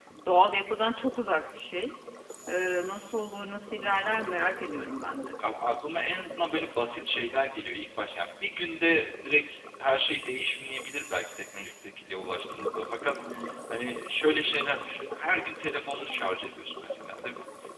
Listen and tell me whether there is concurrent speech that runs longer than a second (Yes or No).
No